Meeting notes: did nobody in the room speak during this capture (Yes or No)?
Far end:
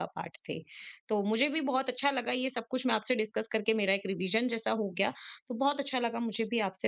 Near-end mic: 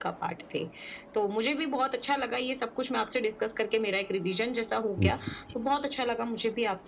No